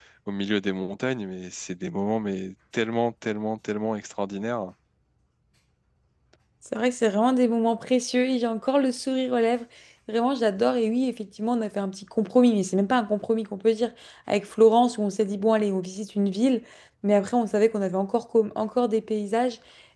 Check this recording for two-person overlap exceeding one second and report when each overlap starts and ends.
none

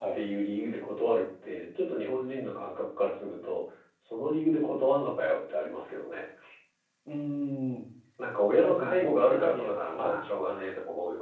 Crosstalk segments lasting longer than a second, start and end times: 8.5-10.2

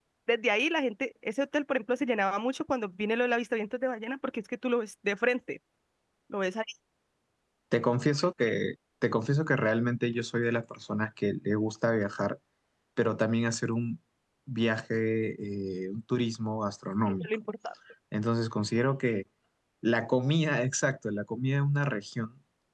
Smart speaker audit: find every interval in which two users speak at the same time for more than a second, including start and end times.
none

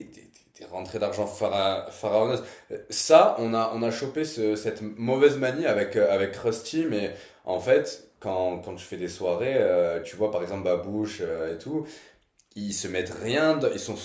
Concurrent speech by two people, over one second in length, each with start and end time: none

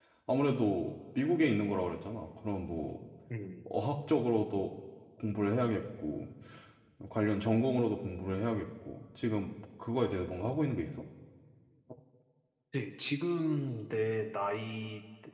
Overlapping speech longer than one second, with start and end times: none

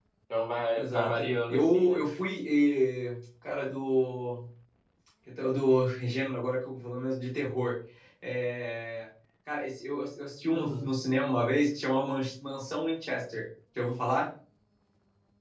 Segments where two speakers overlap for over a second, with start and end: 0.8-2.0

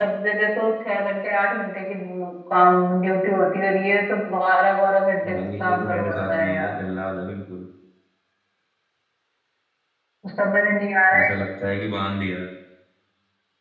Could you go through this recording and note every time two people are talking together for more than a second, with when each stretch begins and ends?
5.3-6.8

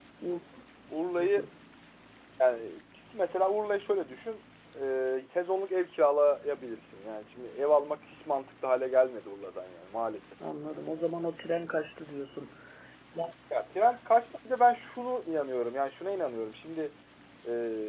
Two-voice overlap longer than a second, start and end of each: none

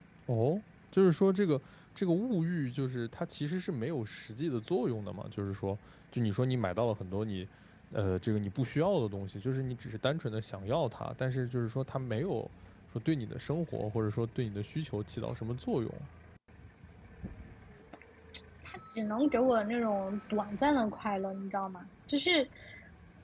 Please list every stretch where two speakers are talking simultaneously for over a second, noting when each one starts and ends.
none

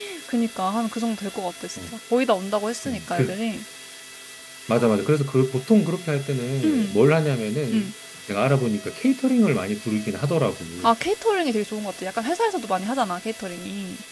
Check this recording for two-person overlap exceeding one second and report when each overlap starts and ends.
none

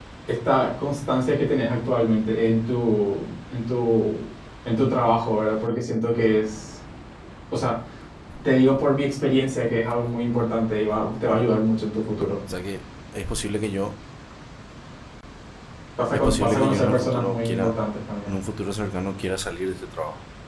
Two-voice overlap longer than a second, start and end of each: 16.1-17.7

